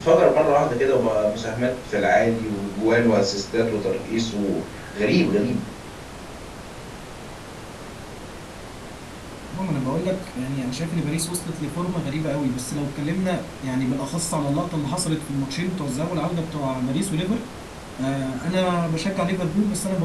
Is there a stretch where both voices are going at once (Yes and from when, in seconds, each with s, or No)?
No